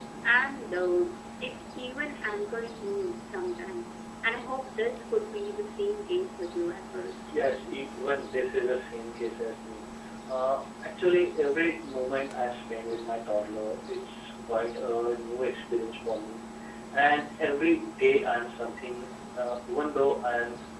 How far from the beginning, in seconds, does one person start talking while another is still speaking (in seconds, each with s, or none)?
none